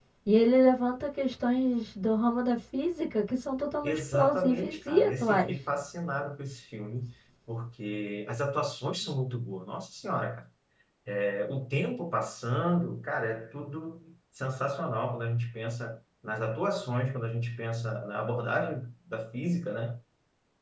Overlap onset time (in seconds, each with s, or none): 3.8 s